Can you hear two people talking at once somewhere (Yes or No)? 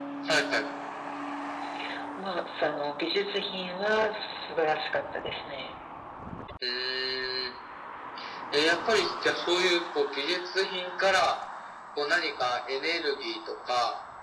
No